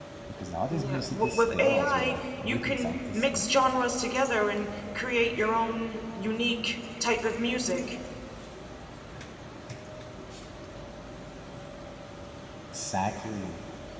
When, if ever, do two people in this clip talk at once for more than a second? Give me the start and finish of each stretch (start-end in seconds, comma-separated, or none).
0.7-3.4